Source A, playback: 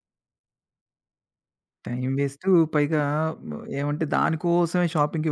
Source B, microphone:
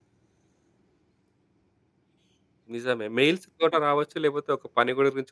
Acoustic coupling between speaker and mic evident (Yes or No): No